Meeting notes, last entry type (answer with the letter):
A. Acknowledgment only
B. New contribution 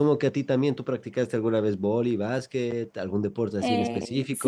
B